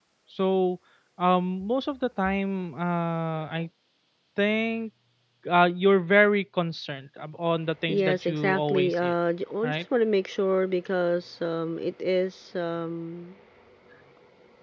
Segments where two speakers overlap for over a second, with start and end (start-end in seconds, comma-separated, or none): 7.9-9.1